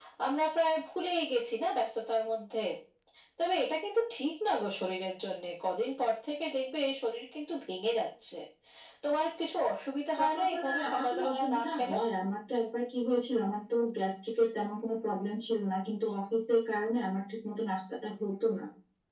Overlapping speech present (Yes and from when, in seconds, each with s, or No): Yes, from 10.2 s